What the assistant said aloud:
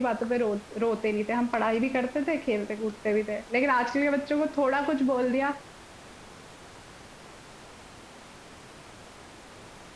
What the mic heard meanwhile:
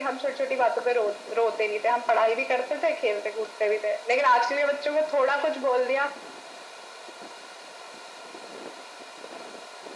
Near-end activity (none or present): none